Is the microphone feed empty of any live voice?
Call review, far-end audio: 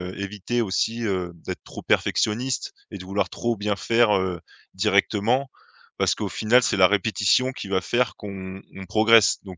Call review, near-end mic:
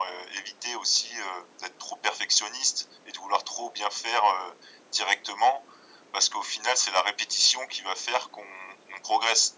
Yes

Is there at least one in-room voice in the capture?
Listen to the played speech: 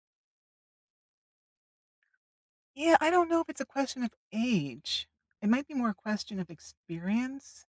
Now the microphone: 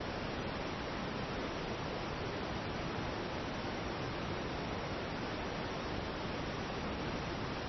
No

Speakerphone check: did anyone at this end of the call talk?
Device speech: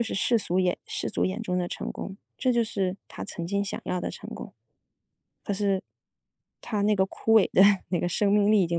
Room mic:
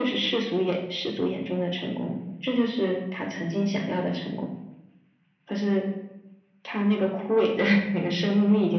No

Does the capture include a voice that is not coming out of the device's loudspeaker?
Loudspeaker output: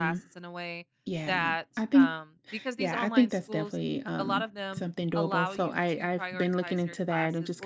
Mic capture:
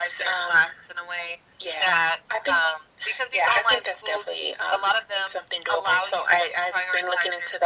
No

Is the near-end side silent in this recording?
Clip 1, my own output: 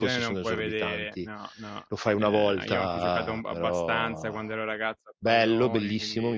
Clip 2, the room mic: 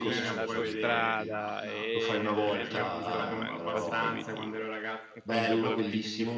No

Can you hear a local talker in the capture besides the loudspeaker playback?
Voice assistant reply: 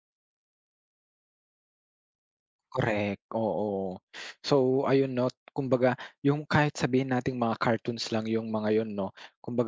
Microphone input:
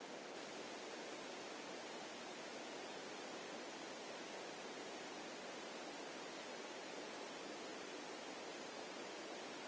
No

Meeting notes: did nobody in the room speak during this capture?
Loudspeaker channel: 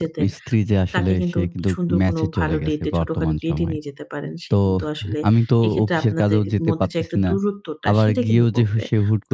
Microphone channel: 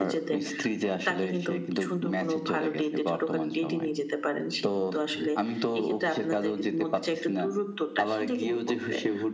Yes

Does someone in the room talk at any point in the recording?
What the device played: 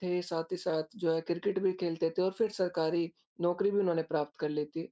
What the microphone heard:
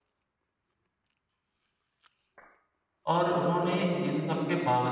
Yes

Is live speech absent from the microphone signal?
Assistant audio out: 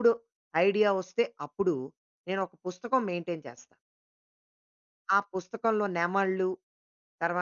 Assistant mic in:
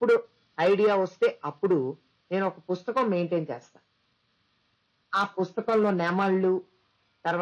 Yes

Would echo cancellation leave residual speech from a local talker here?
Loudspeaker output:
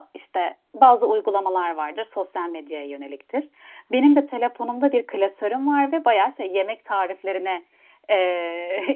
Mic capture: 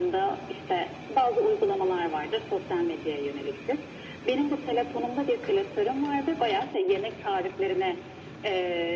No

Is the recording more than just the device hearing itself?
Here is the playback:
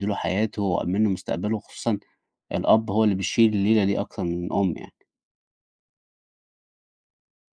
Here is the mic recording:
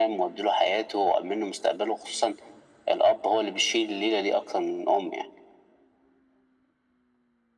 No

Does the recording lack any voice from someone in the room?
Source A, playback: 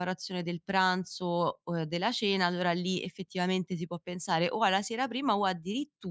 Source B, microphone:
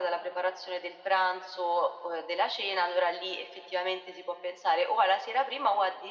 Yes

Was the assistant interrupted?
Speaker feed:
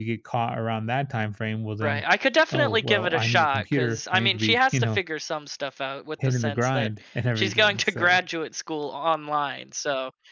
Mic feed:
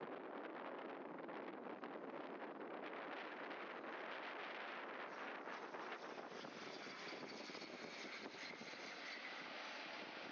No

